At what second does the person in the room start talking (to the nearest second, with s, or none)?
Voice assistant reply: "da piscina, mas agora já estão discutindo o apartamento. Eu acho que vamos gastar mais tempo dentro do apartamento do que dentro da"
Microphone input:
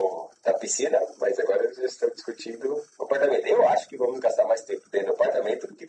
none